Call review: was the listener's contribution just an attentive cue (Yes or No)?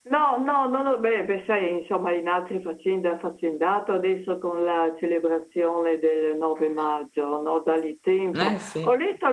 Yes